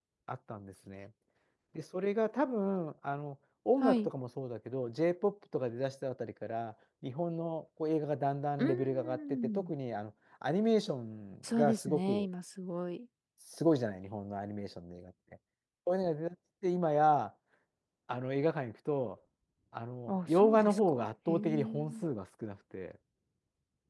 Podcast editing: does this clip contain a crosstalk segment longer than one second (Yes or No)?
Yes